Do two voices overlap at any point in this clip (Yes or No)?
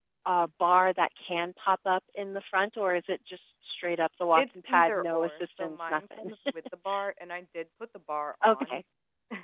Yes